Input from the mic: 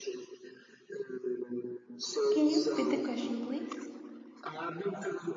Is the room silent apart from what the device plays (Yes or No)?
No